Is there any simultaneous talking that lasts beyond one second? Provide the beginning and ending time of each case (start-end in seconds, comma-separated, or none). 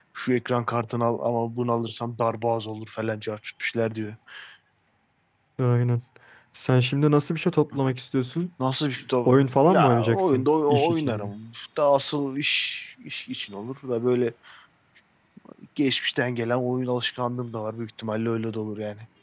9.7-11.3